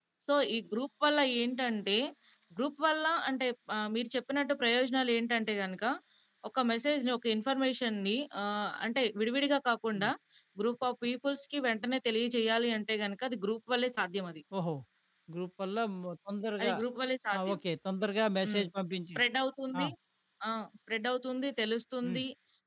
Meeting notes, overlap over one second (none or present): none